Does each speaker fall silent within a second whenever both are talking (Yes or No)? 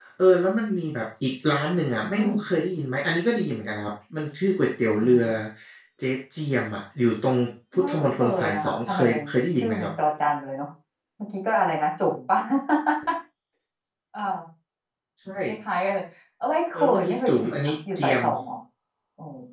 No